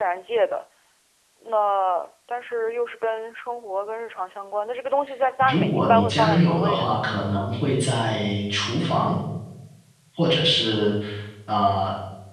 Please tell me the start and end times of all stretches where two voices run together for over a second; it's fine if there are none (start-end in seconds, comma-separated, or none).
5.4-7.0